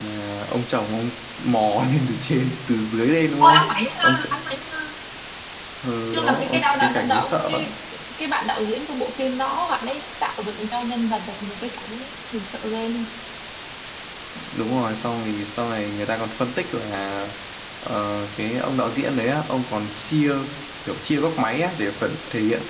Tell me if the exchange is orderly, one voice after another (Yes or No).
No